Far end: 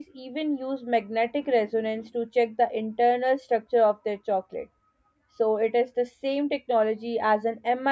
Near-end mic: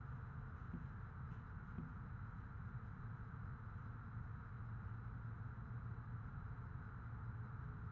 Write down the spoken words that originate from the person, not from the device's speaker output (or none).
none